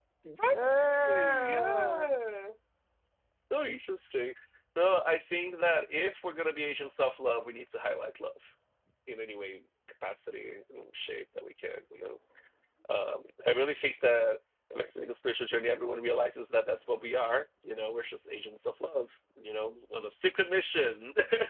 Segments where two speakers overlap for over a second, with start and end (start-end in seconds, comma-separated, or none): 0.5-2.1